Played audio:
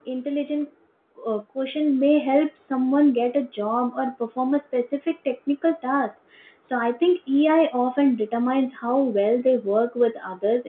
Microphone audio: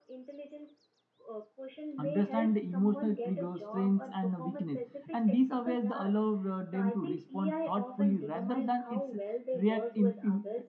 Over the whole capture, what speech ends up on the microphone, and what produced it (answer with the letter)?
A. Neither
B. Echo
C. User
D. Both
D